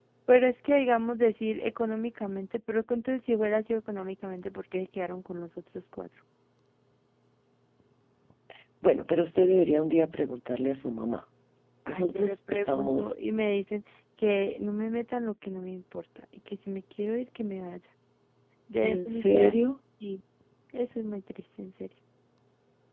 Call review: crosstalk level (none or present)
present